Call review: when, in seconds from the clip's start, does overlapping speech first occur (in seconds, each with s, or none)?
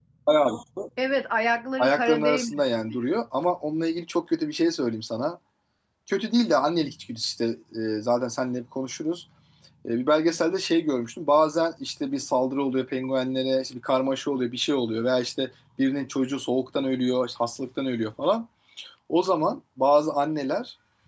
1.8 s